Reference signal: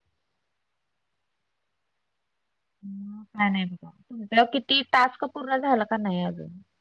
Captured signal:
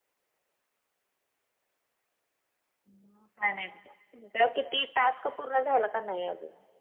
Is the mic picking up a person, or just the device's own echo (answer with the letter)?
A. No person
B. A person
A